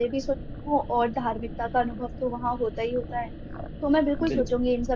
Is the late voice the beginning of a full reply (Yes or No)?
No